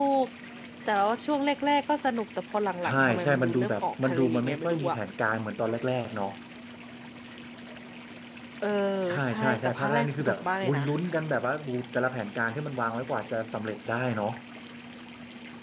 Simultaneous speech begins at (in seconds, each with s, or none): 2.8 s